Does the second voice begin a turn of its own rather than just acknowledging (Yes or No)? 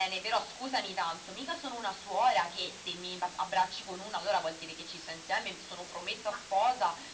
No